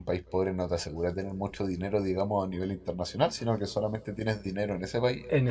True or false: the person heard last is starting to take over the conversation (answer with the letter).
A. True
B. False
A